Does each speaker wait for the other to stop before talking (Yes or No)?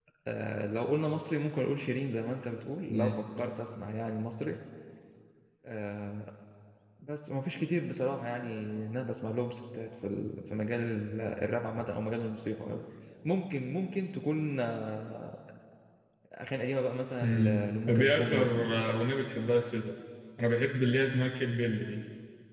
No